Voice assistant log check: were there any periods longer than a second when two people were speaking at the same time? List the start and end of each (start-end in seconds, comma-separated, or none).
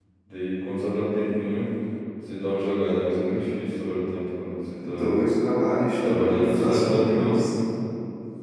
6.0-7.4